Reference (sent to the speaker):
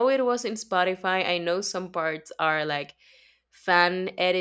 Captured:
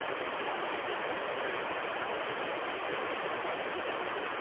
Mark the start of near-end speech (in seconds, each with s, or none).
none